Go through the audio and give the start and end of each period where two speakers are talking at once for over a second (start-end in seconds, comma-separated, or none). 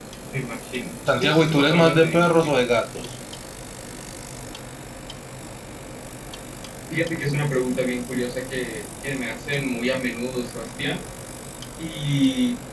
1.2-2.5